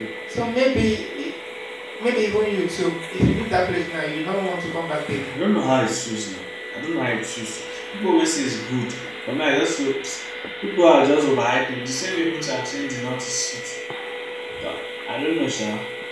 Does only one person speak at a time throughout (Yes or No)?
Yes